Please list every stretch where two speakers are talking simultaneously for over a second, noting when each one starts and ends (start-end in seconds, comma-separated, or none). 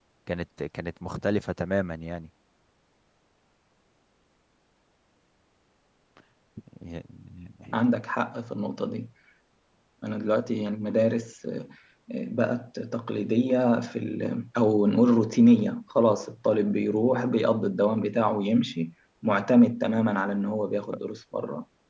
none